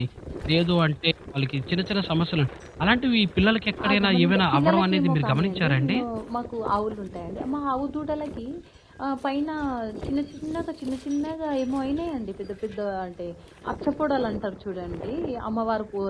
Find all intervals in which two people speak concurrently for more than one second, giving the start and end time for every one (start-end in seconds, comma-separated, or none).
4.0-6.0